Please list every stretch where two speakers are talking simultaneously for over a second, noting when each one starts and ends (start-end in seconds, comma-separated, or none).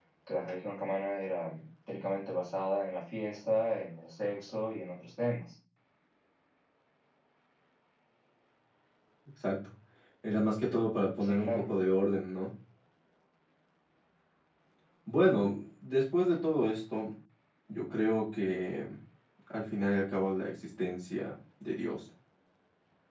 none